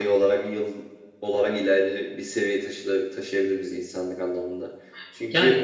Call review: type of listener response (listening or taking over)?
listening